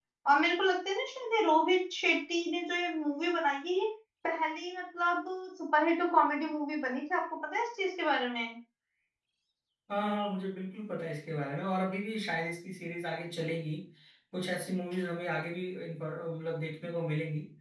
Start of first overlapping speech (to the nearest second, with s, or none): none